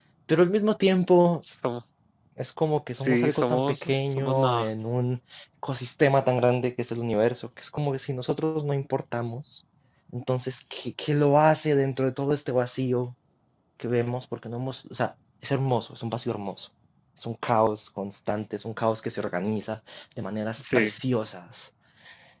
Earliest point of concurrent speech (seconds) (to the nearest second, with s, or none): 3 s